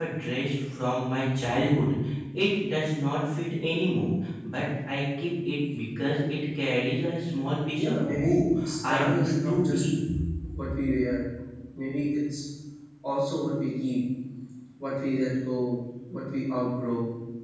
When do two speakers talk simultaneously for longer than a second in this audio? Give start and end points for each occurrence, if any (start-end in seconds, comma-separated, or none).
7.8-9.8